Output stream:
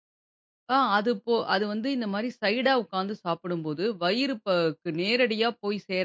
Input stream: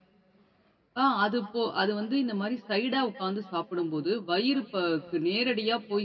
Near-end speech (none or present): none